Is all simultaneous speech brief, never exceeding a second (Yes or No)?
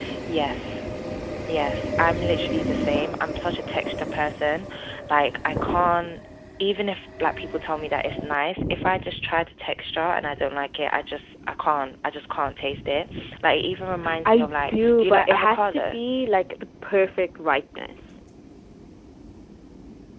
No